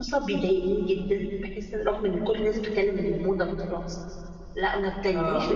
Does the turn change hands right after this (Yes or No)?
No